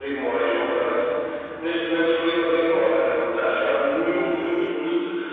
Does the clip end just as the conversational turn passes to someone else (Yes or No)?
No